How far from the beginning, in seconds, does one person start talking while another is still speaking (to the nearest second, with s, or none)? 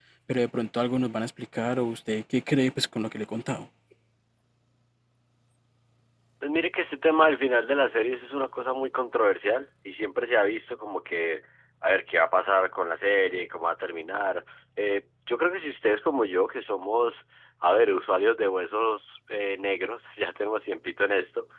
none